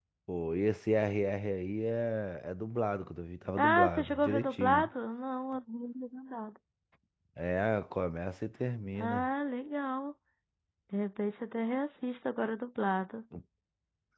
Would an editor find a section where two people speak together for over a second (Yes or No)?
Yes